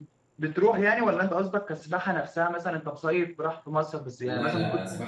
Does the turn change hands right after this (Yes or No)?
Yes